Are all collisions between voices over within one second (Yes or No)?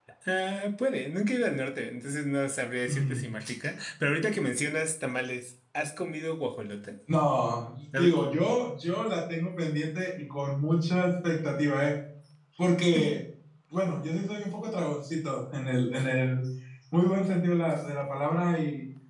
Yes